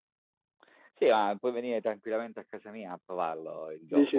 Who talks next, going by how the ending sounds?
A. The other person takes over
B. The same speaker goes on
B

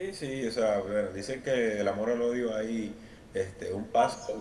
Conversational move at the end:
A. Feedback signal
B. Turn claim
A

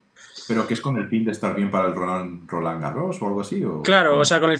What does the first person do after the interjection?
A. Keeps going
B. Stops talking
B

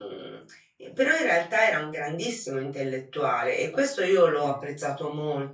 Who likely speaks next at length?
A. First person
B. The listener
A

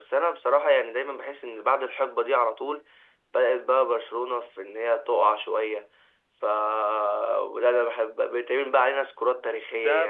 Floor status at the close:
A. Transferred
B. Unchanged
A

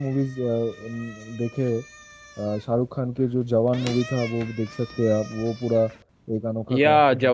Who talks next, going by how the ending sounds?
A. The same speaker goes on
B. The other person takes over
B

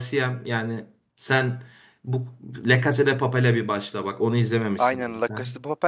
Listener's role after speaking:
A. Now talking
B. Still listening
A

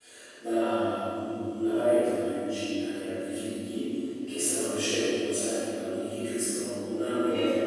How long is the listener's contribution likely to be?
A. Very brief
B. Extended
A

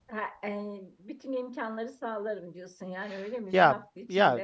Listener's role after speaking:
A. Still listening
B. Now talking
B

